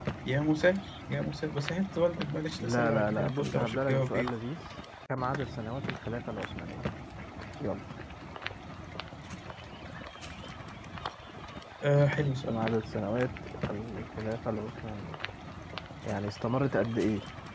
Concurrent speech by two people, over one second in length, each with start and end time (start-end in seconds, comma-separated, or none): 2.6-4.3